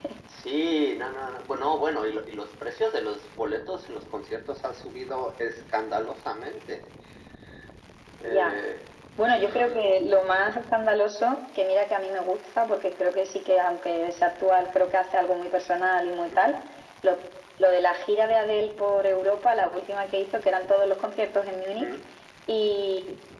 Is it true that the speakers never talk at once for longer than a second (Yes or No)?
Yes